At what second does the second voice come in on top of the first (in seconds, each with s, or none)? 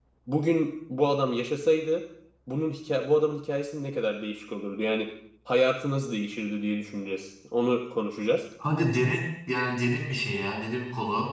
none